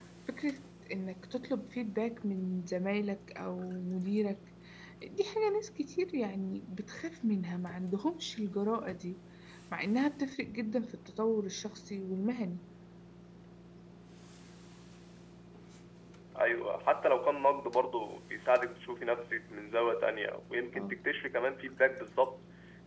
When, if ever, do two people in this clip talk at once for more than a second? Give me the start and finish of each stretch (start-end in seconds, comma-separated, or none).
none